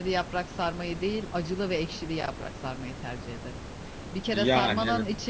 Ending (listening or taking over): listening